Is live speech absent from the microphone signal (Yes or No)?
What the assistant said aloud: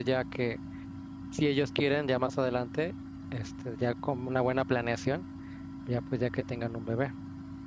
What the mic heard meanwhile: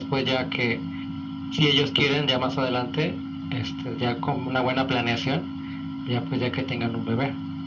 Yes